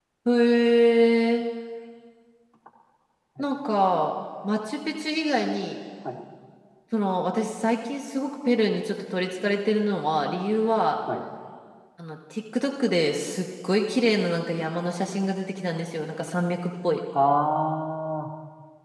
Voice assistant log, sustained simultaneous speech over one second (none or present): none